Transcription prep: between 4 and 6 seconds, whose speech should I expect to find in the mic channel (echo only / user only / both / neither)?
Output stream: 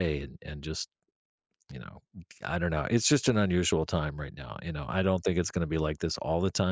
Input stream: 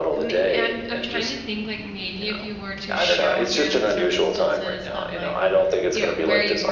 both